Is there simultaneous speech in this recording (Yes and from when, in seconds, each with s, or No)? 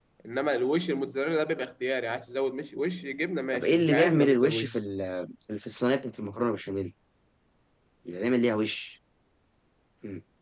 Yes, from 3.5 s